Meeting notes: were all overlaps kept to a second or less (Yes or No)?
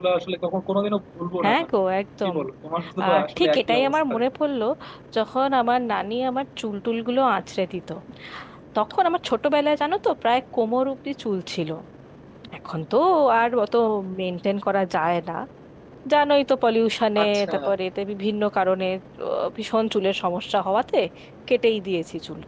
No